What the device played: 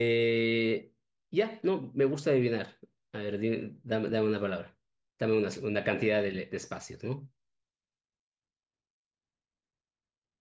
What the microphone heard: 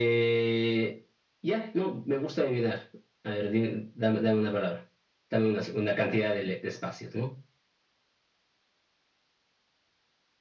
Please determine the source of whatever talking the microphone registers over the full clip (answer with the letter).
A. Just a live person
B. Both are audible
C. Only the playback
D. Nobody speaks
C